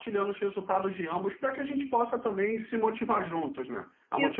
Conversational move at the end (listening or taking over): taking over